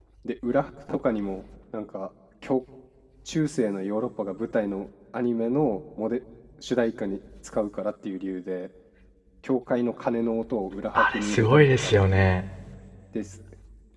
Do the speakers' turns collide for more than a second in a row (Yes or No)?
Yes